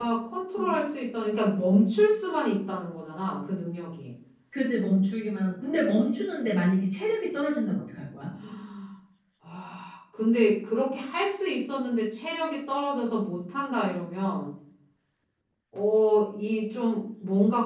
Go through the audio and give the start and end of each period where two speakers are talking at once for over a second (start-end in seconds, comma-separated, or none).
none